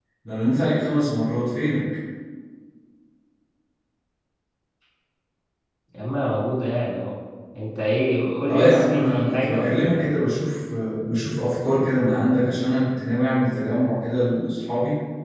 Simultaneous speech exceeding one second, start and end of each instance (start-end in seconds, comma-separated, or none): 8.5-10.1